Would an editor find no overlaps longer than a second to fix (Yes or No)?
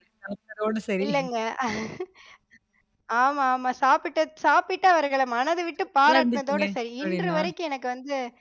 No